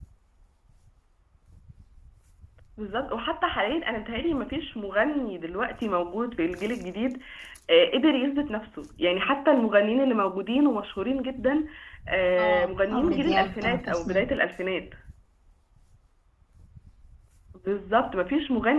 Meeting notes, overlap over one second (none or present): present